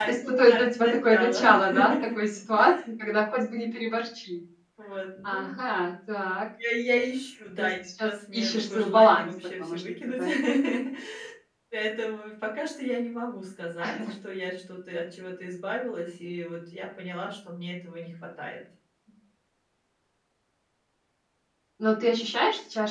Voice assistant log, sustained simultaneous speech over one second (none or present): present